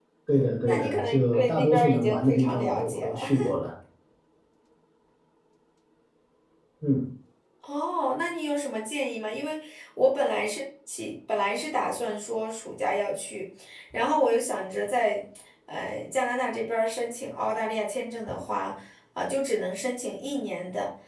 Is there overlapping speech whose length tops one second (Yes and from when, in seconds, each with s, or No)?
Yes, from 0.6 s